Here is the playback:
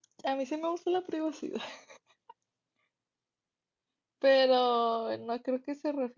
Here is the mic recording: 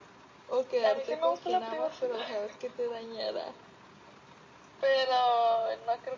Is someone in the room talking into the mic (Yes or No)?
Yes